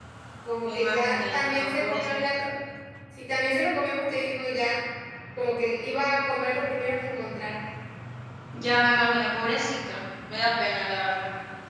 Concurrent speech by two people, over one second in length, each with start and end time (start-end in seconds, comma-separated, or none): 0.6-2.4